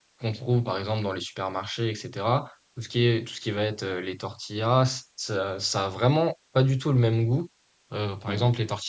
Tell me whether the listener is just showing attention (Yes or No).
Yes